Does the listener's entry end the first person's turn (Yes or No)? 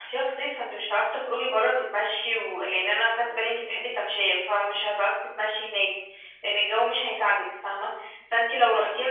No